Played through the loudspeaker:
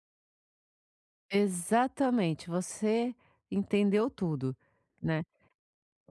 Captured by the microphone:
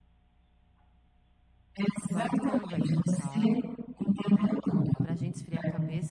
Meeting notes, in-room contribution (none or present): present